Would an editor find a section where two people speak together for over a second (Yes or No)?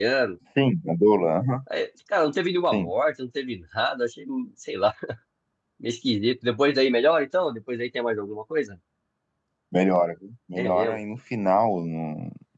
No